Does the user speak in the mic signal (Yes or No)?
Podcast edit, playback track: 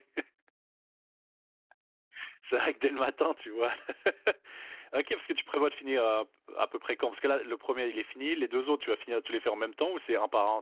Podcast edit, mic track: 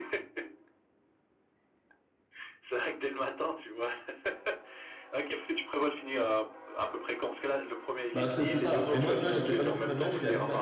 Yes